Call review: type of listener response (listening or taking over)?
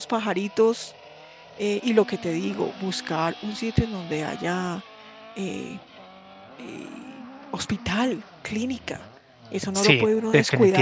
taking over